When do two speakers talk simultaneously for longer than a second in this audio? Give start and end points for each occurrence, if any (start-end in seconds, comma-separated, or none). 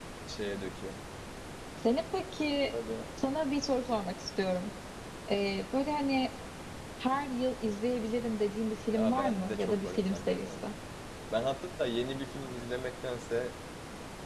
9.0-10.7